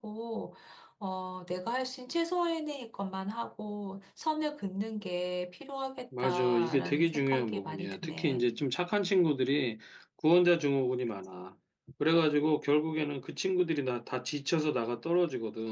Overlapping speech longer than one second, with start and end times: 6.2-8.4

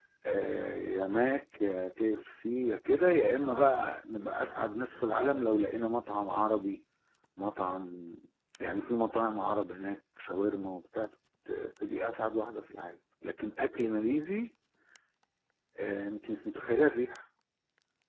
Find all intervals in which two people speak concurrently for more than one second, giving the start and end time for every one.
none

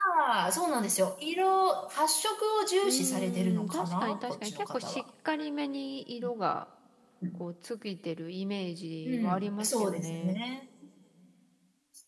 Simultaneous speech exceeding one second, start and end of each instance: 2.8-5.0, 9.1-10.4

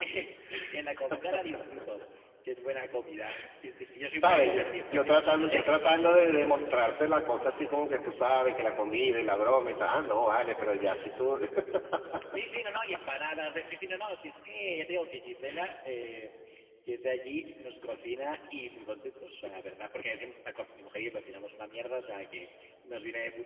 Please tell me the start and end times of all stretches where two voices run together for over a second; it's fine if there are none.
4.2-5.6

